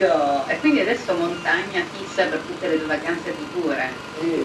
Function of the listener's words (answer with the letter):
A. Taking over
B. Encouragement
A